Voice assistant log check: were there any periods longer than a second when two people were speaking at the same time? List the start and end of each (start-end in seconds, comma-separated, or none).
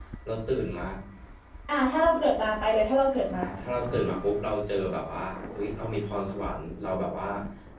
none